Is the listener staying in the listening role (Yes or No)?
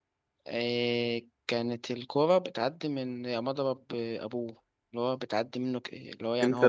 No